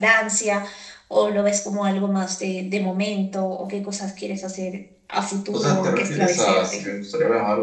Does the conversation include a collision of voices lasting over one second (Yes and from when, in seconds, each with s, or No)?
Yes, from 5.5 s